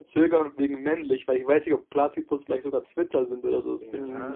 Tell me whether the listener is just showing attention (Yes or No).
No